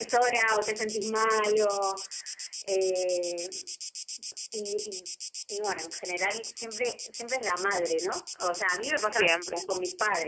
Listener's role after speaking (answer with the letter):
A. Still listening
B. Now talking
A